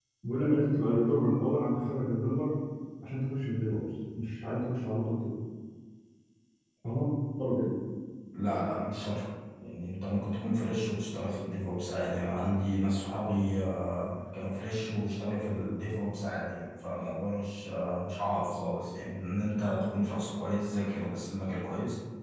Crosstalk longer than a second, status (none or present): none